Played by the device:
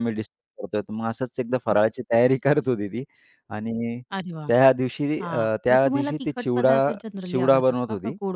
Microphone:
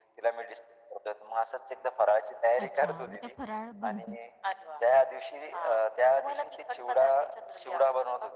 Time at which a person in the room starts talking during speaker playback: 2.6 s

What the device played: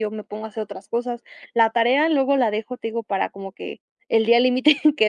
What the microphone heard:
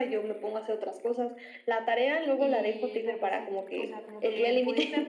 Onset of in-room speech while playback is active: 2.3 s

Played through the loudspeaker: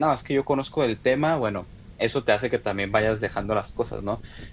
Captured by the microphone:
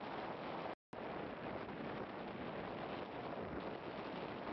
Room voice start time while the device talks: none

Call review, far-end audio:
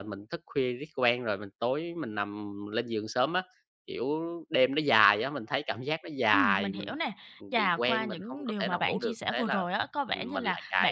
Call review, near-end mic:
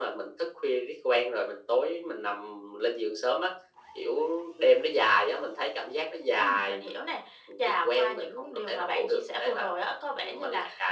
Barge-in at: none

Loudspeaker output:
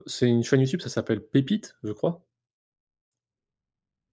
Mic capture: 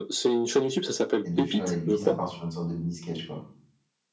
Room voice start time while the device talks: 1.2 s

